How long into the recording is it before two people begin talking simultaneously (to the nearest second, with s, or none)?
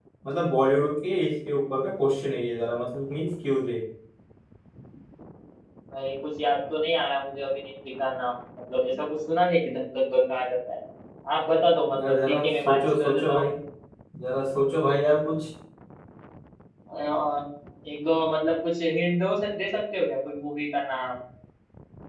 12 s